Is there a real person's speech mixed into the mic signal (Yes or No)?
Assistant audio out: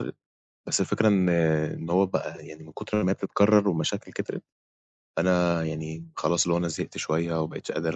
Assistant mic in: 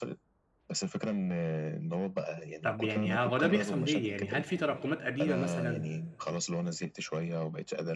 Yes